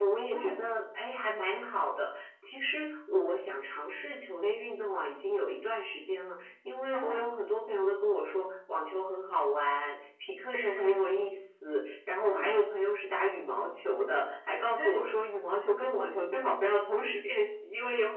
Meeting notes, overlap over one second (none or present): none